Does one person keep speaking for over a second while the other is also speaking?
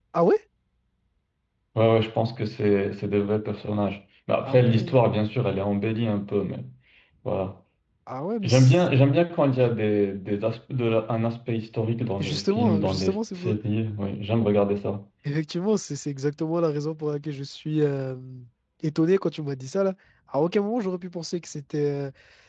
Yes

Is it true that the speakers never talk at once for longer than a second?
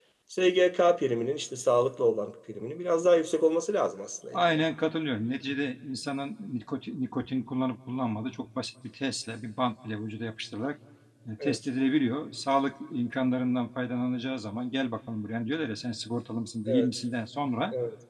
Yes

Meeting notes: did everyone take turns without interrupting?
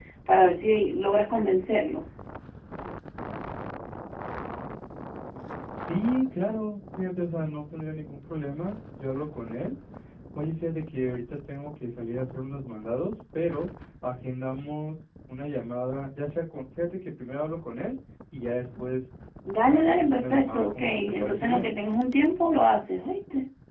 No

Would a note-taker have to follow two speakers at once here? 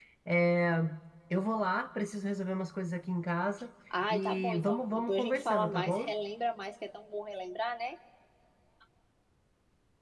Yes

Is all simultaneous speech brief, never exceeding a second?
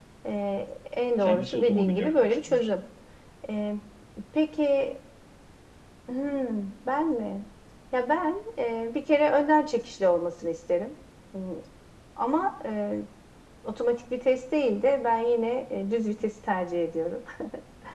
No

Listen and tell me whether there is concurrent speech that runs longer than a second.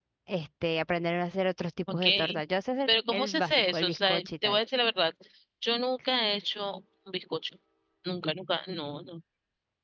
Yes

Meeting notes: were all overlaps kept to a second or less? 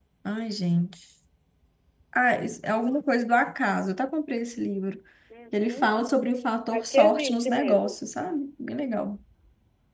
No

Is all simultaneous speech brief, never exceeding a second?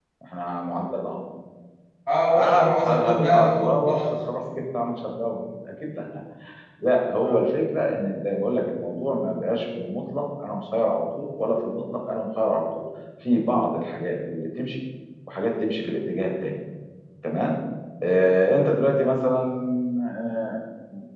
No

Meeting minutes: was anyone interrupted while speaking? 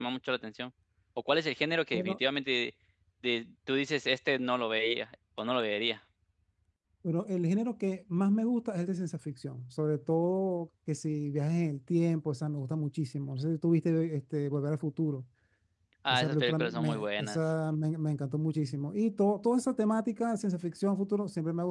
Yes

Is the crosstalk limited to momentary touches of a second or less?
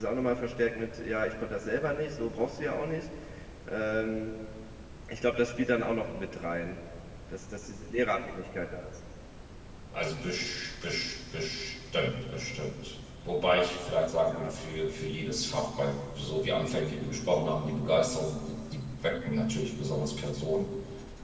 Yes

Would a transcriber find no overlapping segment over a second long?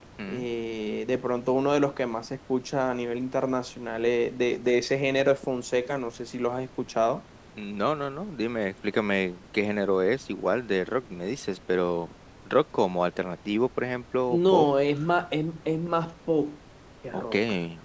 Yes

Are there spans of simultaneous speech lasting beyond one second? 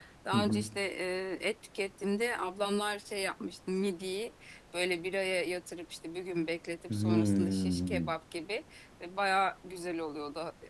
Yes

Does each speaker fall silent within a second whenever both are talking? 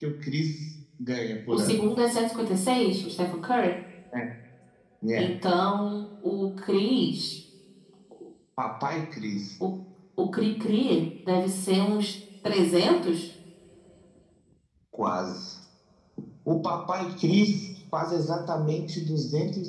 Yes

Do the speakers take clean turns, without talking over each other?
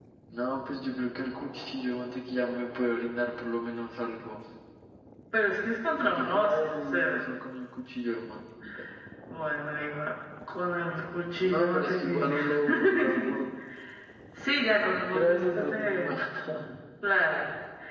No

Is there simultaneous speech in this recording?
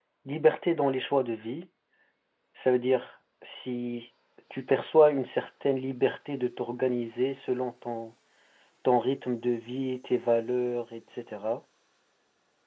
No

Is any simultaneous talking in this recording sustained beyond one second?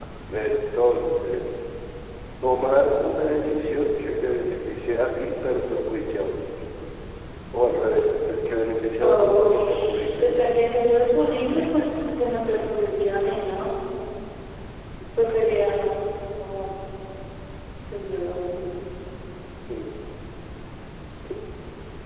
Yes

